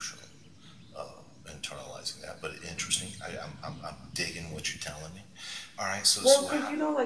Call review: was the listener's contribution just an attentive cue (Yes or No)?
No